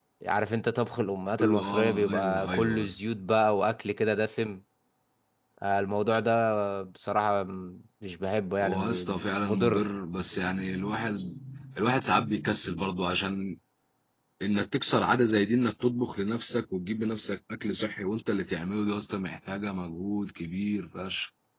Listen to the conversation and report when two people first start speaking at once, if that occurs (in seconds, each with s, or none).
1.4 s